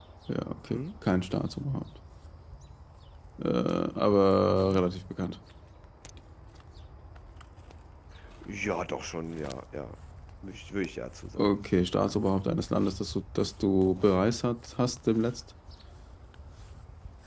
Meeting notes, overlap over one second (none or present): none